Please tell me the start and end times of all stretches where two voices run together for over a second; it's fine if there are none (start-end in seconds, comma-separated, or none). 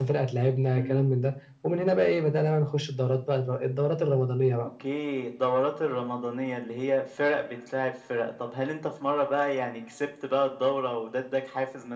none